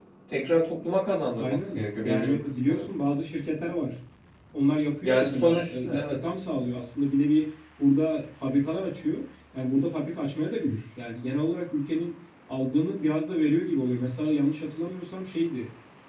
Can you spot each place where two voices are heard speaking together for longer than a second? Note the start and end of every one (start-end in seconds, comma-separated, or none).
1.4-2.9, 5.0-6.2